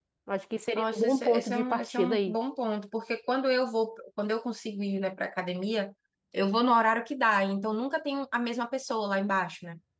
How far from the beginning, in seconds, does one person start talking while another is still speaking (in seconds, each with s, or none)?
0.8 s